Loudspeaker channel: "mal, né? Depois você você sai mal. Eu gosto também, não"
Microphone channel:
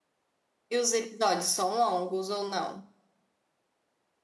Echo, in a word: none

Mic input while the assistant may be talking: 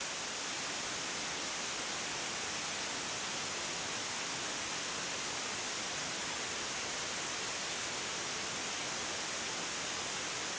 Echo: none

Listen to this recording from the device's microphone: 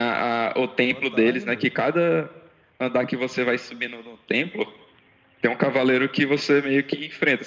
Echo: present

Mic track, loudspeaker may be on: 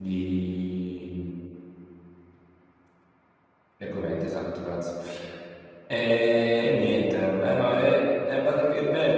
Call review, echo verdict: none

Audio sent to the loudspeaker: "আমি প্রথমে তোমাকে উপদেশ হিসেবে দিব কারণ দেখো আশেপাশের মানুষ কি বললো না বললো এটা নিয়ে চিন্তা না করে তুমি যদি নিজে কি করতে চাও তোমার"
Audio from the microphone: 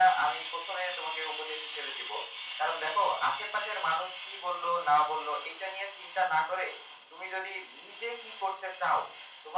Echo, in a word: present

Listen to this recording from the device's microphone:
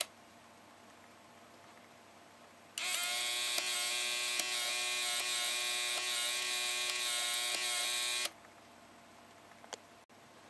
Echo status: none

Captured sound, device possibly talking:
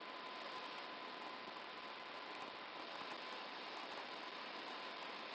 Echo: none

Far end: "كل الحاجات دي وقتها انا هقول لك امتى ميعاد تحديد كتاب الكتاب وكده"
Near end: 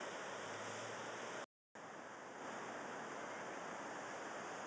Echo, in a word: none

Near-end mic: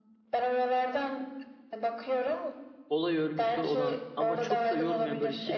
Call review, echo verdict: present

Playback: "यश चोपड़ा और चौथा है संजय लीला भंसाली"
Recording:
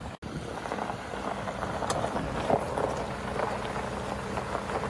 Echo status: none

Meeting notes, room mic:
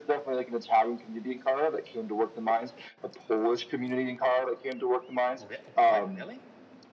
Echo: present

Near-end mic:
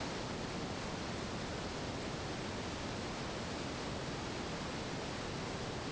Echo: none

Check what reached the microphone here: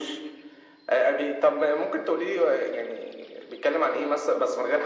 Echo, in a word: present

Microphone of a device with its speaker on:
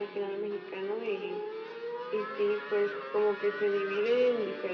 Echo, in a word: present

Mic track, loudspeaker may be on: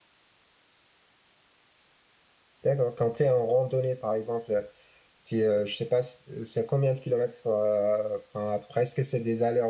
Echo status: none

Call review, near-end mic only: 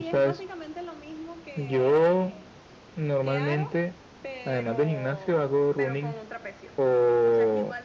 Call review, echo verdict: present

